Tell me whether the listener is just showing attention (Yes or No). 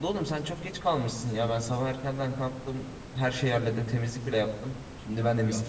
No